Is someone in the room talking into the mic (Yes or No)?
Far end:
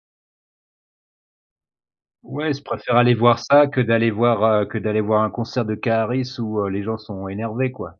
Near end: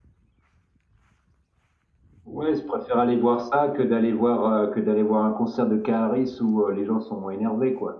No